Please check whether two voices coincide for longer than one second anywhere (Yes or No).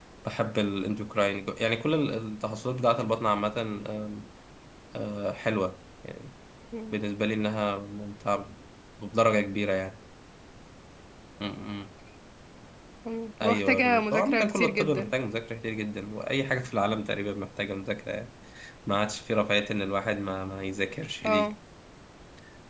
Yes